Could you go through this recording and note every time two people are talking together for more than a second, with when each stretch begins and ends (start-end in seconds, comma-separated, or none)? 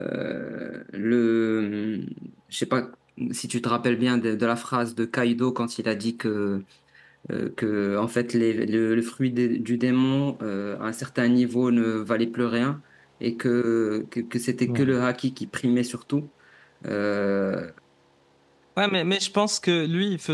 none